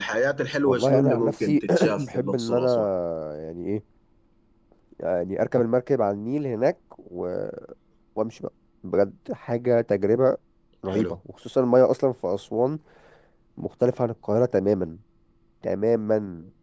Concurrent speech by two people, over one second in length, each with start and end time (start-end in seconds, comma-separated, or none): 0.6-2.7